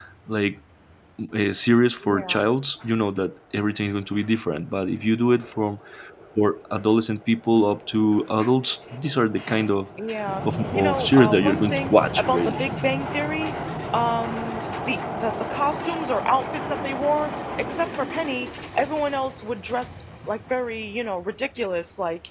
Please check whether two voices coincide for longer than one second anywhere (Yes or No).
Yes